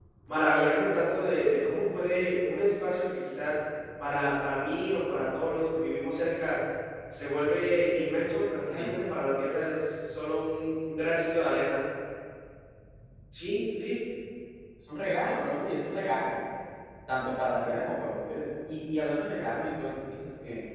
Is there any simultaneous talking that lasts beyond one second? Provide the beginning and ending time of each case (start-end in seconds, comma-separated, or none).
none